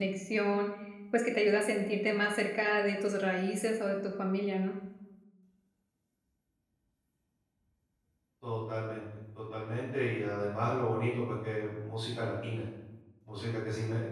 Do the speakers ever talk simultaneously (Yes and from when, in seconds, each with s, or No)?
No